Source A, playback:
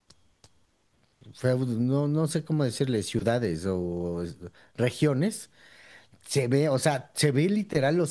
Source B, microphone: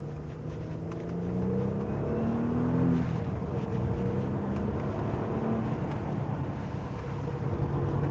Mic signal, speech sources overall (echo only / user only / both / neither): neither